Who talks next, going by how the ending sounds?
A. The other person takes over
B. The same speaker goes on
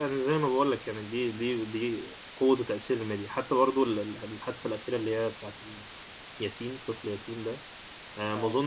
B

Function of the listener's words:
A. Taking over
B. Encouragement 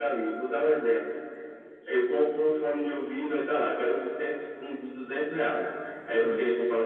B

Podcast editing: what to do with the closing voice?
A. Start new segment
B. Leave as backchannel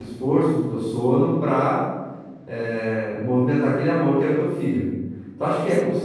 B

